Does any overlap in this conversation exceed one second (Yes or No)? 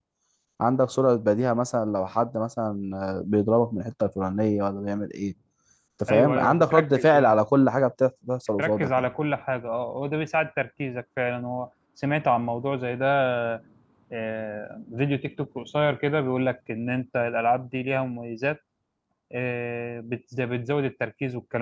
Yes